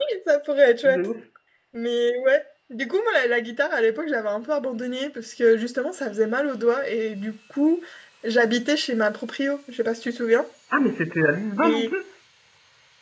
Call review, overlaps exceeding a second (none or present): none